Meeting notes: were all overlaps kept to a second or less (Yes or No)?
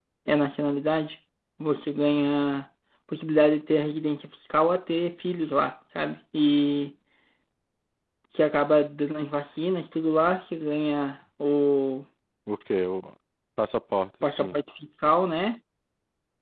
Yes